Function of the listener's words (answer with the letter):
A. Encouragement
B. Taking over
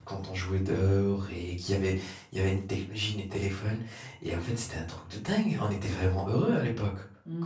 B